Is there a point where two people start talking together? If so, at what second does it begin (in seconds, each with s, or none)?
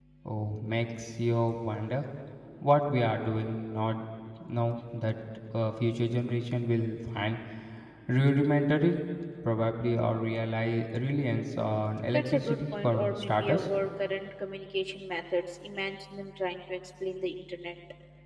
12.1 s